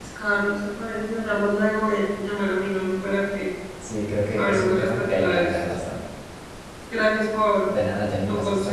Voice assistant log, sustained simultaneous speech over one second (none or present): present